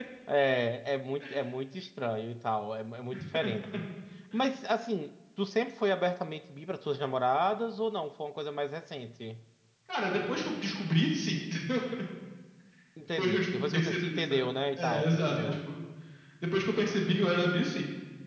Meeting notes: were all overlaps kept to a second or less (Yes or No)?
No